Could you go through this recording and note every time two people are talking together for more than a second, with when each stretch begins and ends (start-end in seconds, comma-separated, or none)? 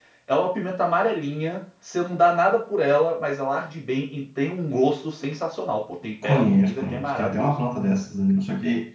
6.2-7.6